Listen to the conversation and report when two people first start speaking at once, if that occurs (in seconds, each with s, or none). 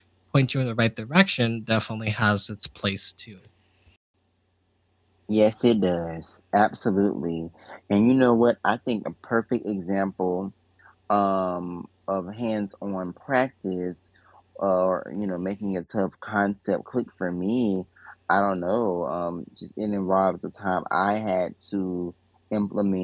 none